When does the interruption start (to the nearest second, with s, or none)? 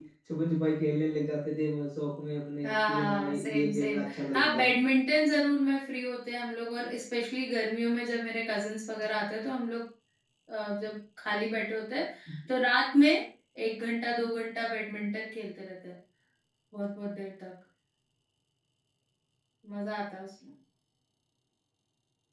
3 s